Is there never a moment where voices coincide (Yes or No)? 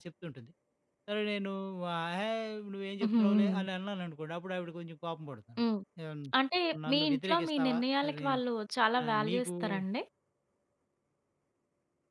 No